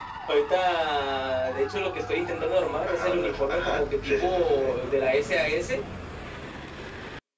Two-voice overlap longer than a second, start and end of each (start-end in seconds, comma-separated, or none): 2.9-4.6